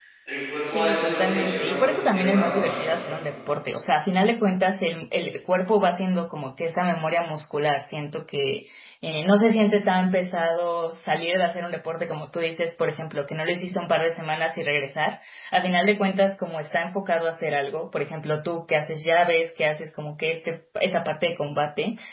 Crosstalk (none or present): present